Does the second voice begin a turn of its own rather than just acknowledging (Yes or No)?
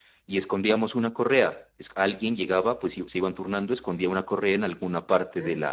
No